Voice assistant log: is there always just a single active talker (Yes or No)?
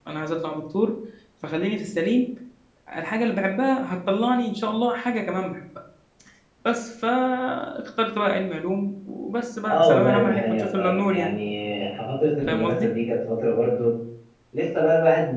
No